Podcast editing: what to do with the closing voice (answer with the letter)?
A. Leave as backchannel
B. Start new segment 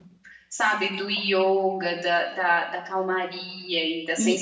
B